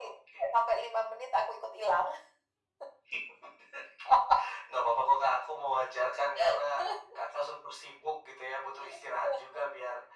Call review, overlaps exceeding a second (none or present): none